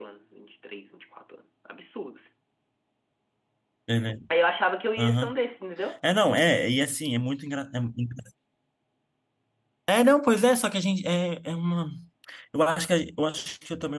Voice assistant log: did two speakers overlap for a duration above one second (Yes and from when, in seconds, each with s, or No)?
No